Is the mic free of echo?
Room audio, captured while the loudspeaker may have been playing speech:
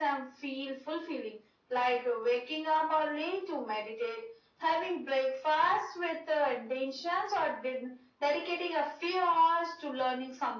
No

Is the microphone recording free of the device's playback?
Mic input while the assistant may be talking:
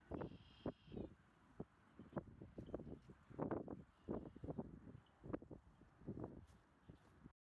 Yes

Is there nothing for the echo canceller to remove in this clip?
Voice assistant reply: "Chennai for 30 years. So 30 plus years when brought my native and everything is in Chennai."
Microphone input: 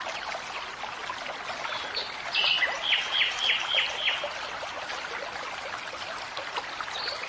Yes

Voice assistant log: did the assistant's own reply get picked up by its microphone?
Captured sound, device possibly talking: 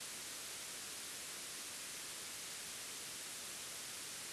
No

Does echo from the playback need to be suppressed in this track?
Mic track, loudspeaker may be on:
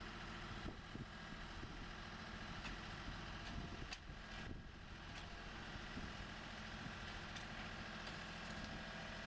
No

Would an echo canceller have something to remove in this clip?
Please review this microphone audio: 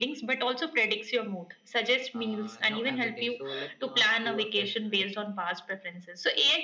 Yes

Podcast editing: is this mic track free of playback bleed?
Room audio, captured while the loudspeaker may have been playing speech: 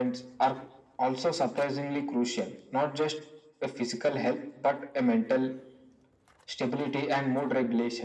No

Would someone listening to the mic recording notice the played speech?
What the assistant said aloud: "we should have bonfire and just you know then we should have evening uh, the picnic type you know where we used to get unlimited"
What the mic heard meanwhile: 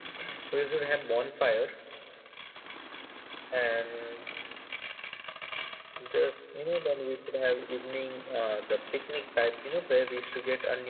Yes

